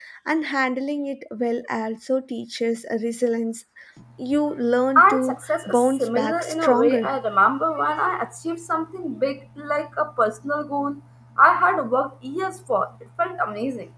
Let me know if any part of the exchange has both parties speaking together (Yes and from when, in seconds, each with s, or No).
Yes, from 5.0 s